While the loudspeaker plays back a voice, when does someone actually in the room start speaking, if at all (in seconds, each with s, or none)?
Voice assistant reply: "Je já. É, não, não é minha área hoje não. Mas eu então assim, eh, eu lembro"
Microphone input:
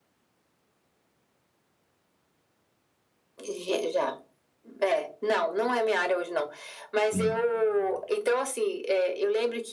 7.0 s